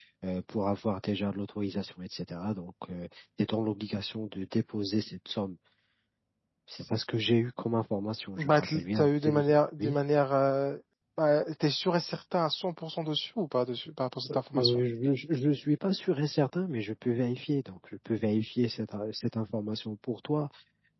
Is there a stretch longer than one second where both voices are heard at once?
Yes, from 8.4 s

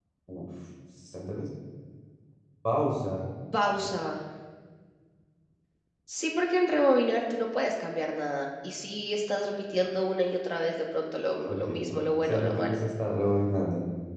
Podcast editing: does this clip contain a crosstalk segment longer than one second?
Yes, from 11.5 s

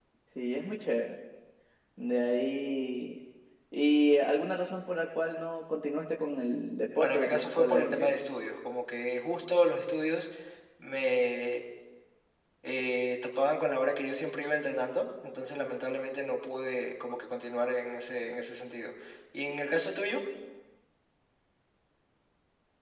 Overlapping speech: Yes, from 7.0 s

